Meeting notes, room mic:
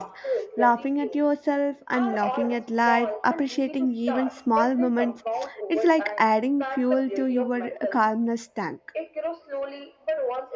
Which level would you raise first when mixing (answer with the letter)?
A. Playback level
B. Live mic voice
A